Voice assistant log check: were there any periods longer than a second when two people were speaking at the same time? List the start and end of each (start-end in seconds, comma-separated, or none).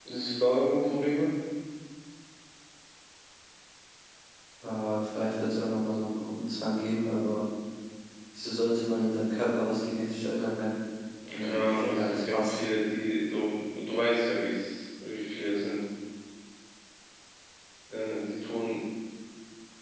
11.3-12.6